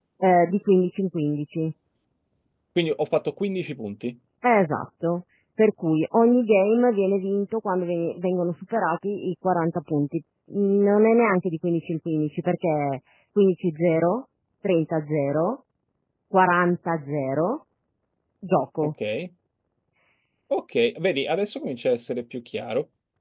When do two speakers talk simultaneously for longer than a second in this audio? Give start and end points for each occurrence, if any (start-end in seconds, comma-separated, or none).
none